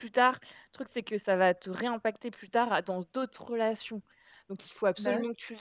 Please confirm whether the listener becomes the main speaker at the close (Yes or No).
No